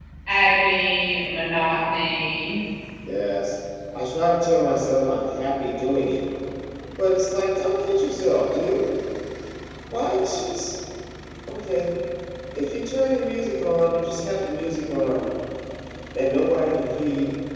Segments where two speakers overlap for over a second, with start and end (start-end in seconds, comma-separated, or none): none